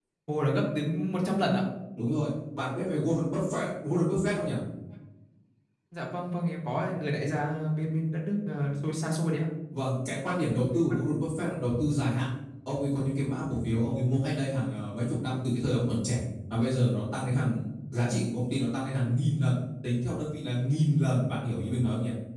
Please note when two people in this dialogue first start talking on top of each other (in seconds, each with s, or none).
none